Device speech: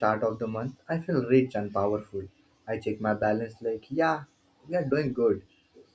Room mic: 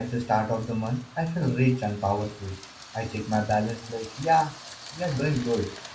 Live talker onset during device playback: none

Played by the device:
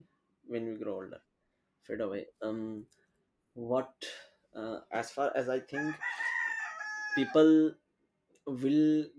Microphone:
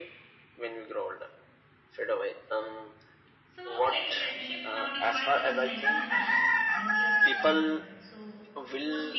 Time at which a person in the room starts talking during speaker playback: 3.5 s

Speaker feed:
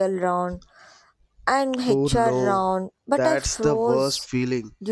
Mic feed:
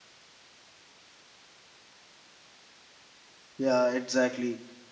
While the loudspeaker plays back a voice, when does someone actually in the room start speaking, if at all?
3.6 s

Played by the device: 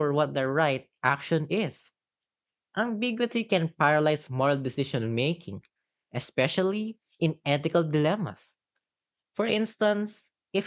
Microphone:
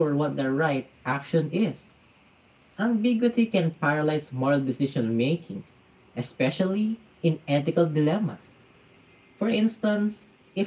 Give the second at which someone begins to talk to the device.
none

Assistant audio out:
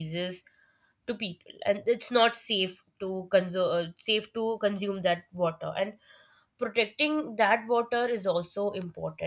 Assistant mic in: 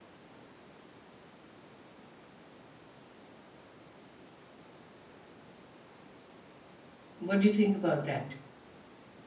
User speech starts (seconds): 7.2 s

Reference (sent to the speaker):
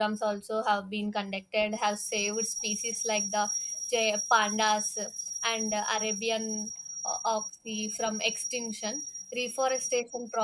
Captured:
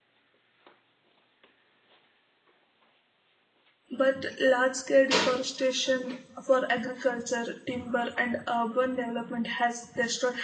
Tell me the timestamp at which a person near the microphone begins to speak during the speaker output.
4.0 s

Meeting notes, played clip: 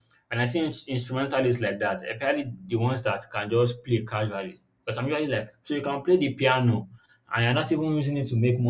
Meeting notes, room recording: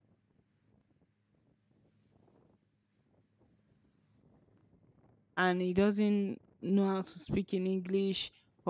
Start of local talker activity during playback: 5.4 s

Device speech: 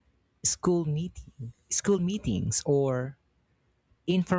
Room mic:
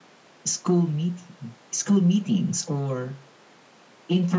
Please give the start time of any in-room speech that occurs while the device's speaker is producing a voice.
none

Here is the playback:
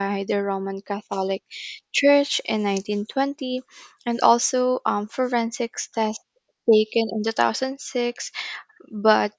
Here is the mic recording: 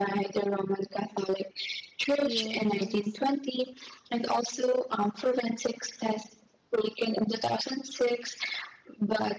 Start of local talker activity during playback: 2.2 s

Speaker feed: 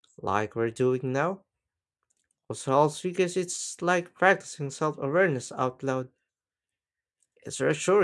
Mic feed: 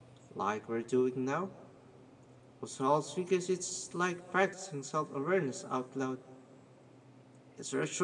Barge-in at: none

